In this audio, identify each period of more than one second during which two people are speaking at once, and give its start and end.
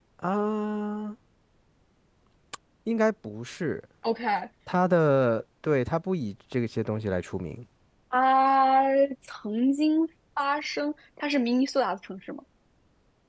none

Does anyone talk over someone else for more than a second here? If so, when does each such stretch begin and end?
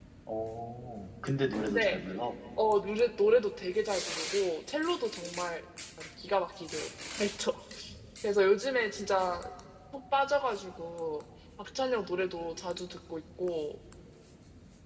none

